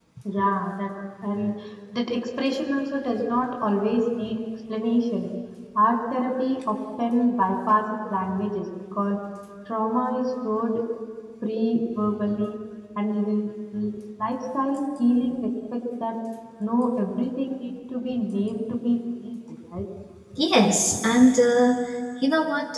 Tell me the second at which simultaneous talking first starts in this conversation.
none

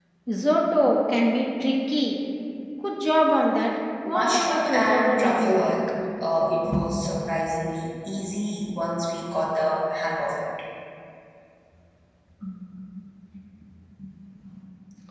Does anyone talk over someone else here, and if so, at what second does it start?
4.1 s

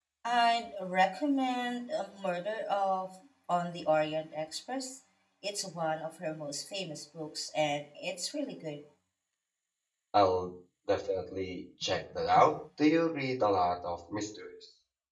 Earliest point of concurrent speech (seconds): none

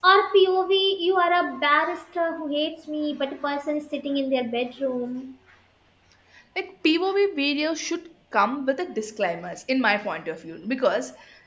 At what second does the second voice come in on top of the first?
none

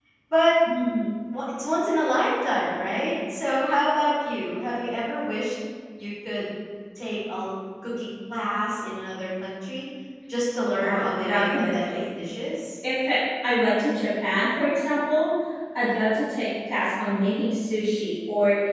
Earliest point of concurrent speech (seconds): 10.6 s

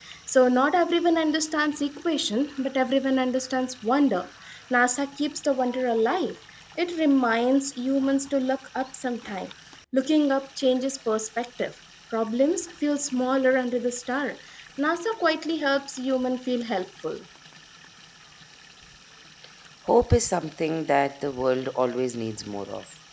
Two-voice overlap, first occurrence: none

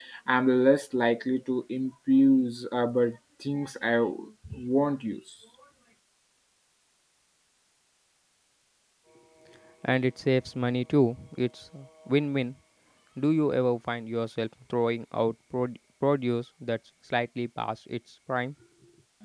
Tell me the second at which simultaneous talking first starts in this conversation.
none

